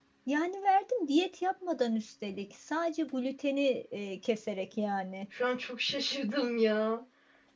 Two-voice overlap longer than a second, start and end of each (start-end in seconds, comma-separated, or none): none